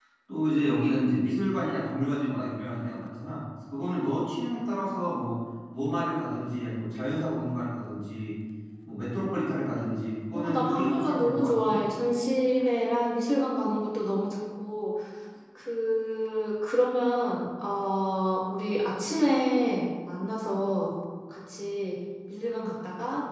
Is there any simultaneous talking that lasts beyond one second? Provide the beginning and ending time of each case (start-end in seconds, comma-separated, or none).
10.3-11.8